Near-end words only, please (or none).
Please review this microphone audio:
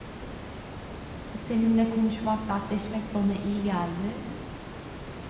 Seninle konuşmak, dertleşmek bana iyi geldi.